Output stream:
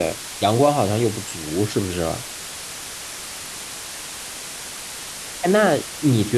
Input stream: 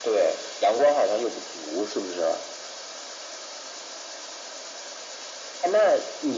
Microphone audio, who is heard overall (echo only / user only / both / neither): echo only